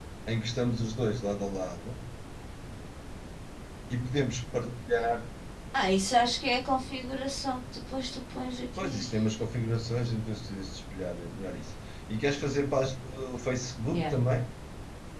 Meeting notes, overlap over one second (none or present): none